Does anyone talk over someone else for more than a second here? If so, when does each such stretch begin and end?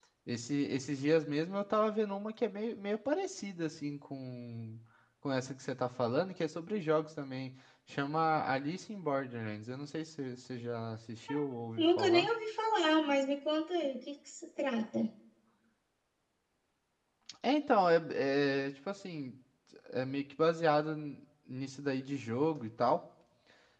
none

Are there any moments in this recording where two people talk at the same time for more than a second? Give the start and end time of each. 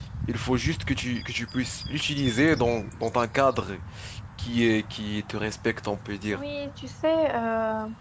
none

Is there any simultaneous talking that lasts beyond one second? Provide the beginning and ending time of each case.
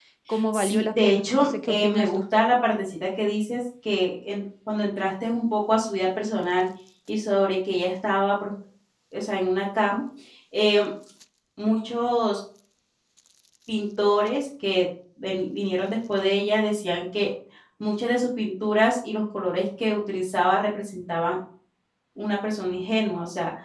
0.5-2.2

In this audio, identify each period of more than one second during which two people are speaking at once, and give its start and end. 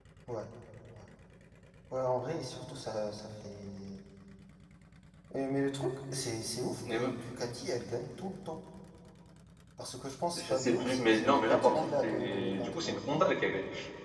10.4-13.3

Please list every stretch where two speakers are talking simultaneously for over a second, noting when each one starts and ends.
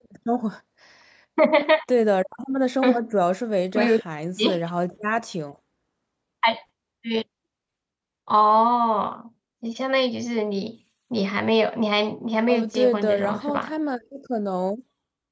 12.5-13.7

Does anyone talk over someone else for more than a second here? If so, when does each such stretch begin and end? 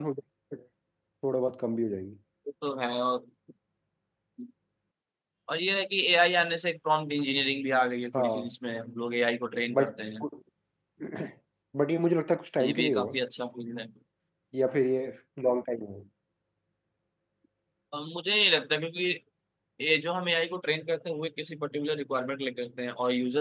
none

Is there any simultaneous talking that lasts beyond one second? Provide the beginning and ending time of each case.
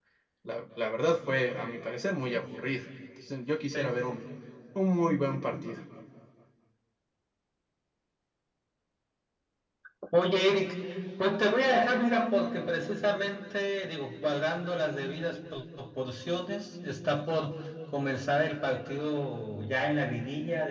none

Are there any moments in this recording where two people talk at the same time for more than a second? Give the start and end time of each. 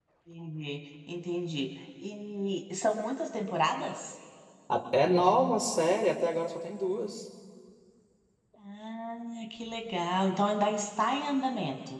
none

